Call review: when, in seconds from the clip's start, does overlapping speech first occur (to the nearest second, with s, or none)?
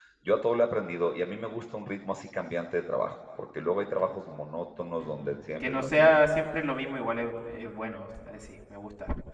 5 s